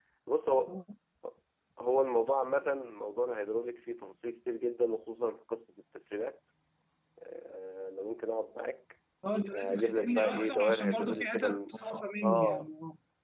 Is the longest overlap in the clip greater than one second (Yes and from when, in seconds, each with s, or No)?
Yes, from 9.5 s